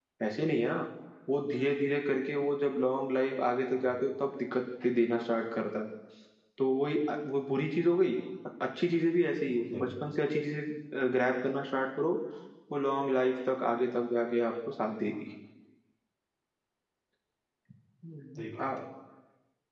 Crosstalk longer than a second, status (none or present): none